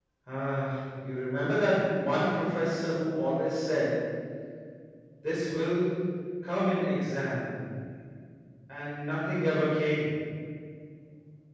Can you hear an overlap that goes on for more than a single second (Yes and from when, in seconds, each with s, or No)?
No